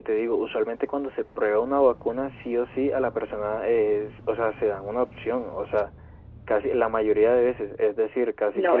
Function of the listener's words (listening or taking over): taking over